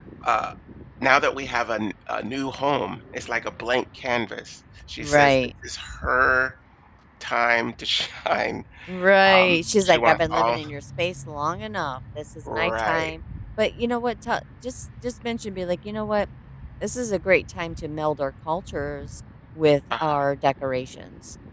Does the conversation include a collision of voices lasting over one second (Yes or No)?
Yes